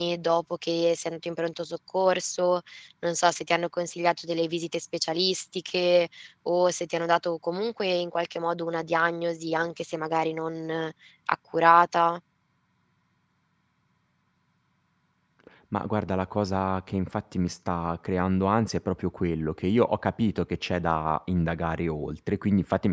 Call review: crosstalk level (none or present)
none